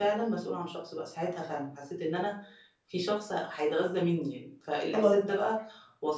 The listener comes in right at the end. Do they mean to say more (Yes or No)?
No